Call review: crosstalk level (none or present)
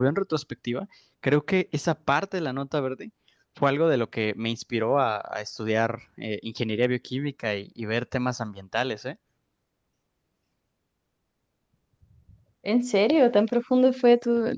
none